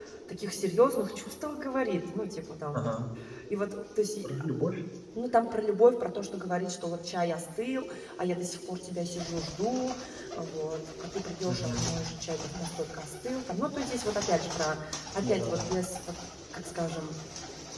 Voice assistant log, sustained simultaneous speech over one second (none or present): none